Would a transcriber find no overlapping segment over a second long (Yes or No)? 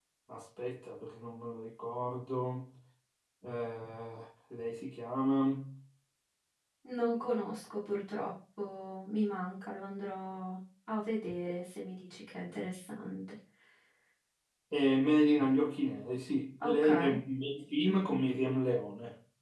Yes